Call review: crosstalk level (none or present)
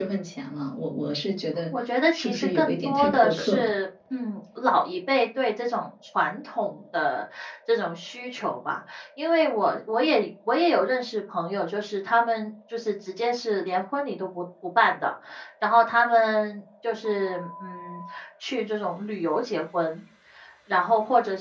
present